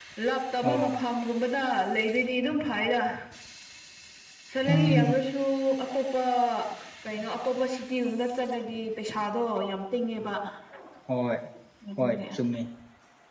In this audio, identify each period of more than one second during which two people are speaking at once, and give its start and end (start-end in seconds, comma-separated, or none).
none